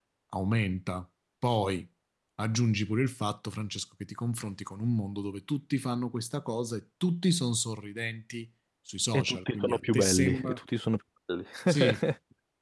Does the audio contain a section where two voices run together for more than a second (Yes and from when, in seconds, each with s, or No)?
Yes, from 9.1 s